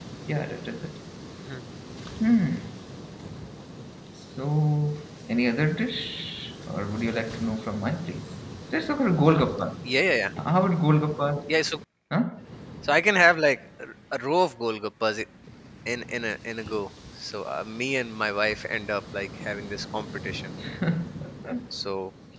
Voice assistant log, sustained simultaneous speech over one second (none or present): none